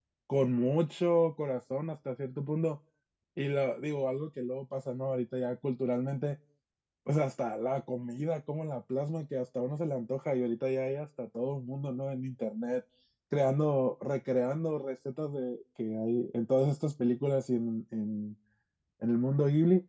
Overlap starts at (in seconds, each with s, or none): none